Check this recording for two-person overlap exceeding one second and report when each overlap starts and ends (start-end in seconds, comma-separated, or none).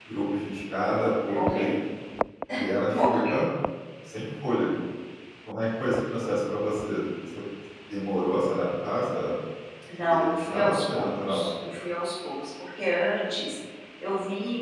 10.0-11.4